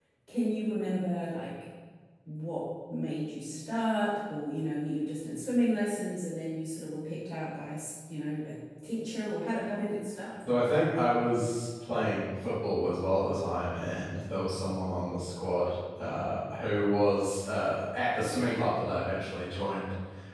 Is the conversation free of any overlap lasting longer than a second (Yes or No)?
Yes